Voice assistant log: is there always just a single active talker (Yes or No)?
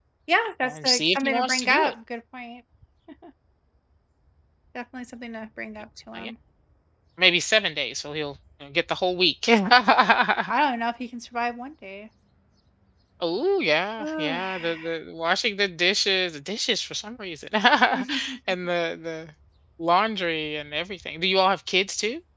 No